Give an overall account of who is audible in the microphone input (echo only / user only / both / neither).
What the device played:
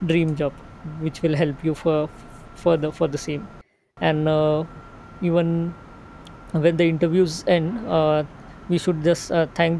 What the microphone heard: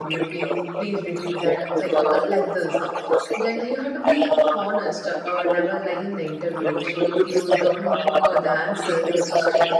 both